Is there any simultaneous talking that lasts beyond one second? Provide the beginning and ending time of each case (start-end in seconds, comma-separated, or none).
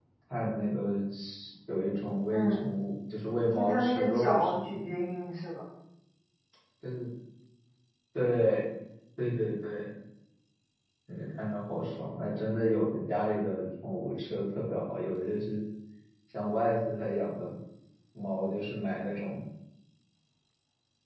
3.5-4.8